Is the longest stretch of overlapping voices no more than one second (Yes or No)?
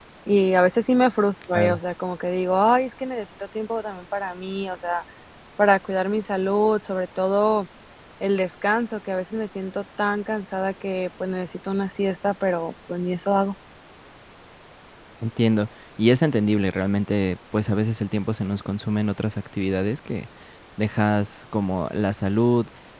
Yes